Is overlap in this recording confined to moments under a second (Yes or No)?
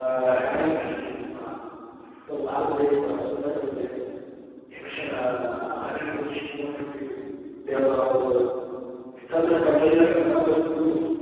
No